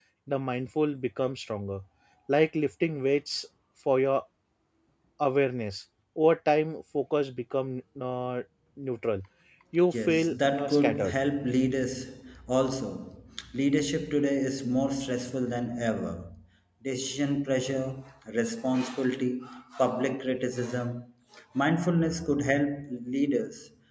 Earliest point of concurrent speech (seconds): 9.9 s

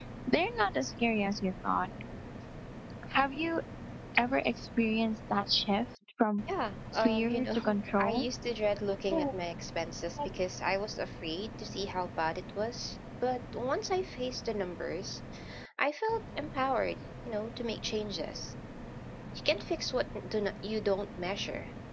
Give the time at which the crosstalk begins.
6.9 s

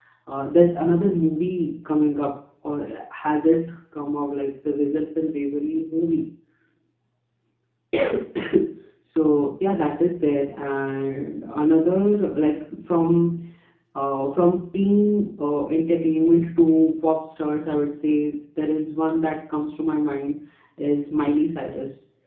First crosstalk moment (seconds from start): none

